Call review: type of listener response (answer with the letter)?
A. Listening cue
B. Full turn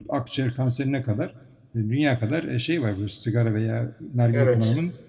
A